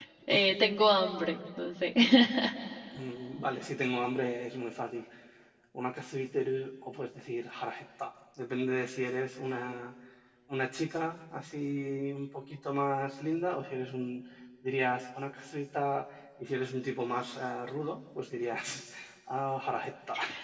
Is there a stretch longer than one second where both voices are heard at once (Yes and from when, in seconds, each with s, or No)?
No